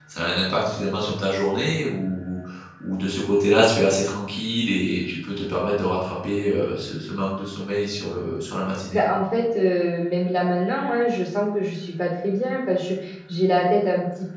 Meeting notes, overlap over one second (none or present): none